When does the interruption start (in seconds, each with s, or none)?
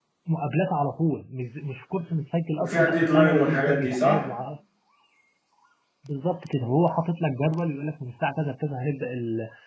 2.6 s